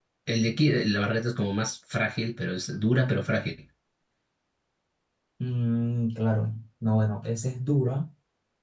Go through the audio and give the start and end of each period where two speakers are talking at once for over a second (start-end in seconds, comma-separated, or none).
none